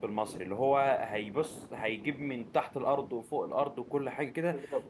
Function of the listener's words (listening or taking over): listening